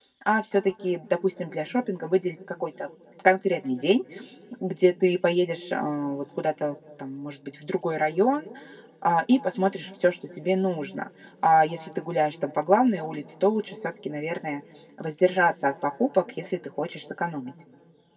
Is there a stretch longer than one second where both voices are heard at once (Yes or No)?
No